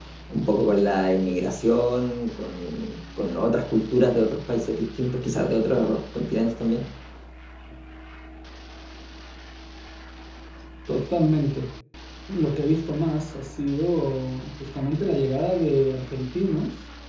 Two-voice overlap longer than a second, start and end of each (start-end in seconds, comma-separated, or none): none